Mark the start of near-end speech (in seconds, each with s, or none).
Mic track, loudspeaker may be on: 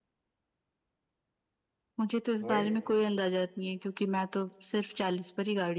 2.4 s